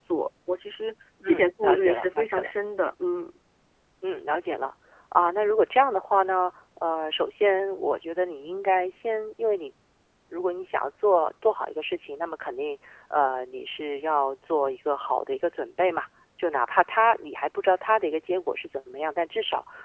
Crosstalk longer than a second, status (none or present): present